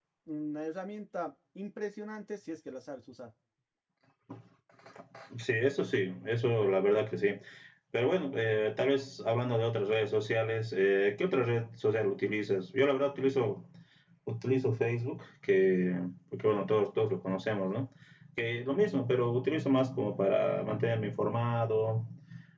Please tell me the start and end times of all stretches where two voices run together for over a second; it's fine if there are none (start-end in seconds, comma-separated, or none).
none